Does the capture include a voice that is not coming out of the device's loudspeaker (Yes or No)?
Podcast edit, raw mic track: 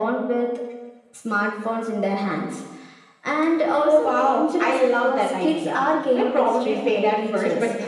No